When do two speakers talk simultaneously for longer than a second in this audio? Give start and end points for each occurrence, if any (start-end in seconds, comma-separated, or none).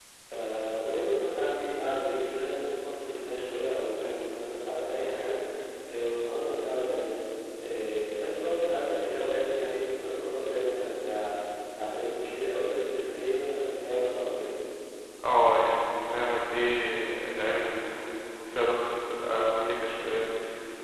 none